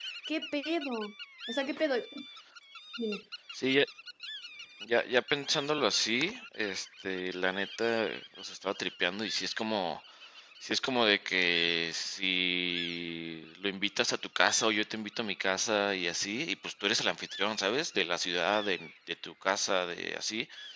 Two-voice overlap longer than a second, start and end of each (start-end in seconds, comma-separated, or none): none